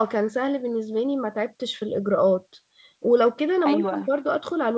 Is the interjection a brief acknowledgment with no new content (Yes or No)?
Yes